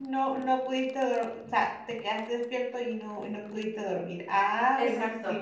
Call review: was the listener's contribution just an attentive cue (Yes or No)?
No